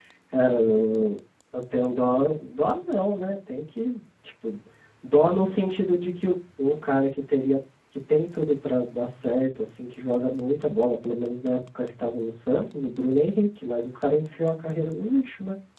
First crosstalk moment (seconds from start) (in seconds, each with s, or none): none